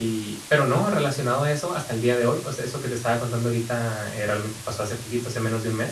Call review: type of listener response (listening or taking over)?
listening